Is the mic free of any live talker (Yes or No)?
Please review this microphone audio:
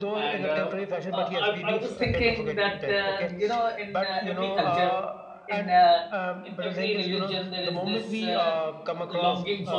No